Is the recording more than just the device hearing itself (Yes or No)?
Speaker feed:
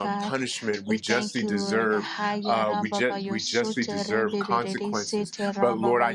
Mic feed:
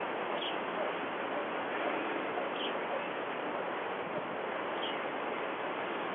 No